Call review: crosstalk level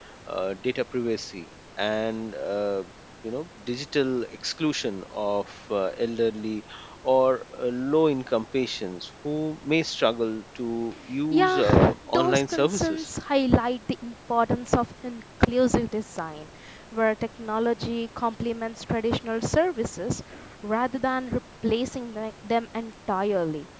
present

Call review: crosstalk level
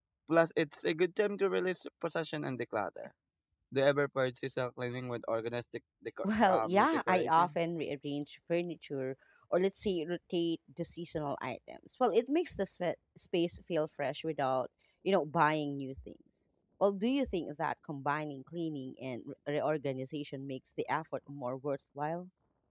present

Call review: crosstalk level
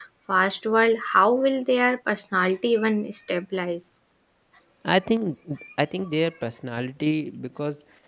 none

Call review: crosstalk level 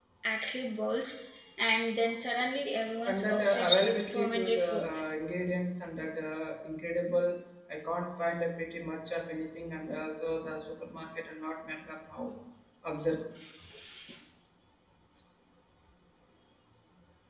present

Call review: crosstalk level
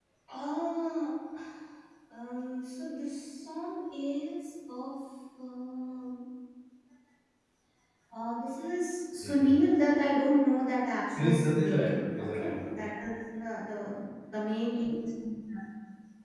present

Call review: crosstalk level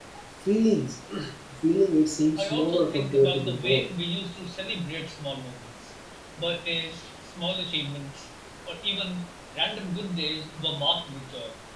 present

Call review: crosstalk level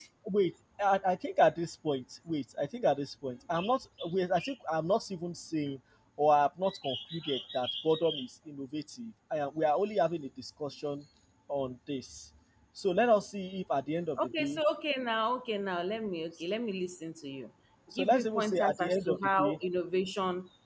present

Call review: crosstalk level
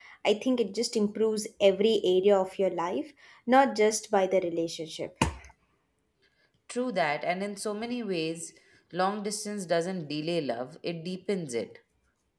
none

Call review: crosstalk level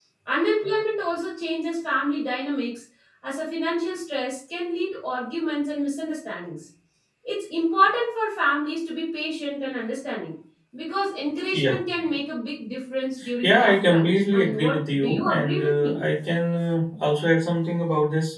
present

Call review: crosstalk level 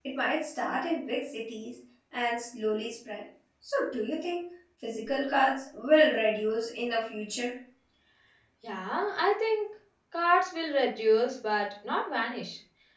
none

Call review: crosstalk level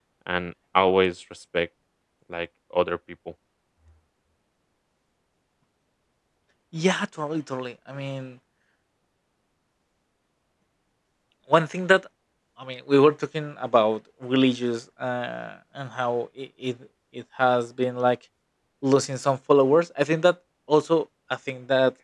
none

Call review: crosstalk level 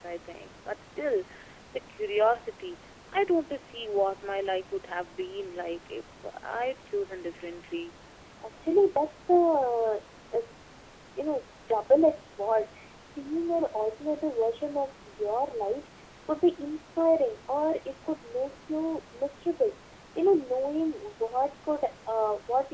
none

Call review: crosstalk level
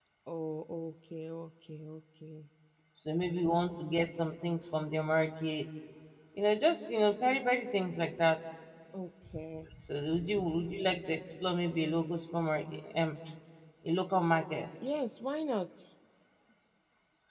none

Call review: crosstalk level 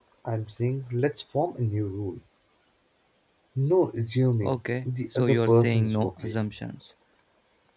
present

